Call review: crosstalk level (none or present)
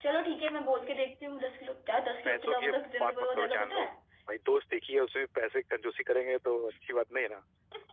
present